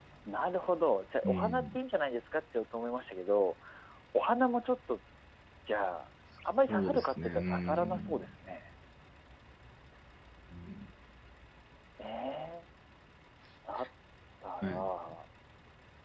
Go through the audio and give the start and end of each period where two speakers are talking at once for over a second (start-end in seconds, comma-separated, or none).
6.7-8.3